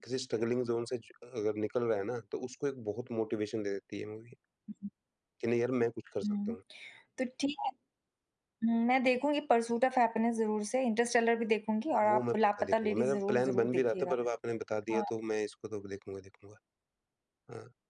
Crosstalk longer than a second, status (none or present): present